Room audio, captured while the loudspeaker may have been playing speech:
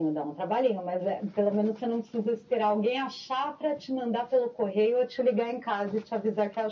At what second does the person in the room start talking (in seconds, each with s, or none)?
none